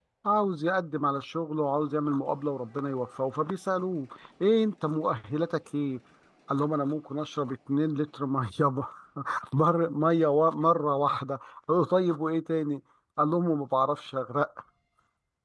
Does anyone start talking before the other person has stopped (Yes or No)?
No